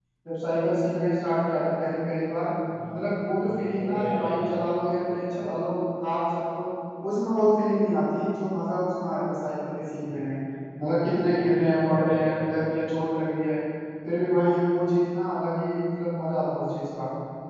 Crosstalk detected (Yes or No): Yes